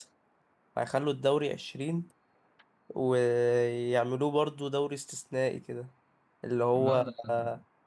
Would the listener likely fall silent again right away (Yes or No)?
Yes